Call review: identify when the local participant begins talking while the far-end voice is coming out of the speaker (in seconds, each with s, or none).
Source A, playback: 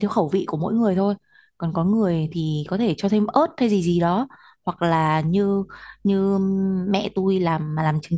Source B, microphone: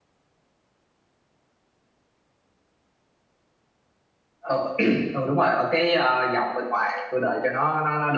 4.4 s